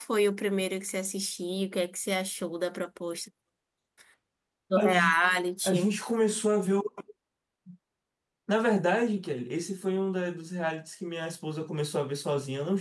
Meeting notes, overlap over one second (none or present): none